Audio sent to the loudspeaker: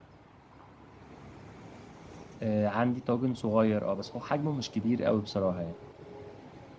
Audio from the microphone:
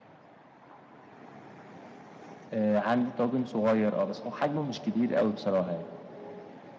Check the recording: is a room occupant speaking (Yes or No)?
No